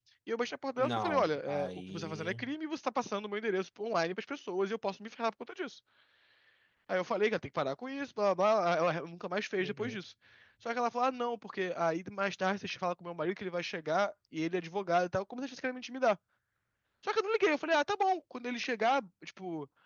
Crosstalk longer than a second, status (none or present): present